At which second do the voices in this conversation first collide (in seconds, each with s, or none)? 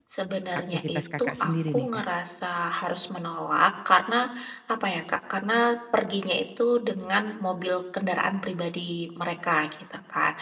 0.7 s